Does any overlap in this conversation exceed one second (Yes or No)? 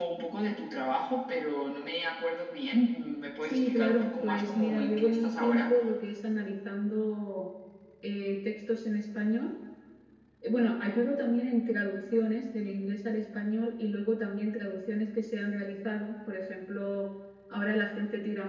Yes